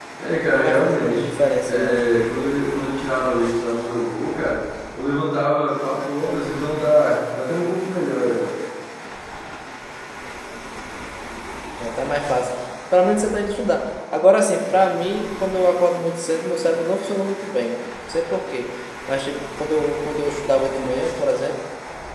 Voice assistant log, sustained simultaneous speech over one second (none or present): present